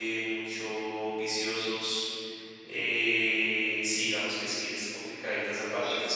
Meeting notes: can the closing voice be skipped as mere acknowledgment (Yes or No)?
No